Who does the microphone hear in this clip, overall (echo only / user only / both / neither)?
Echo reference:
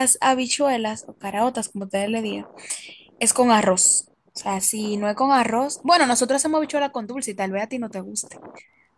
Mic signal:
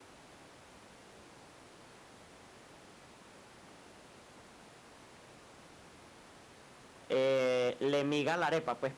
user only